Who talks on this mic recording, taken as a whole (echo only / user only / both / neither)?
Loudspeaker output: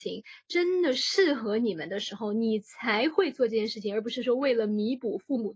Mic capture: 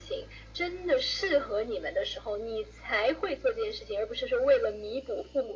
echo only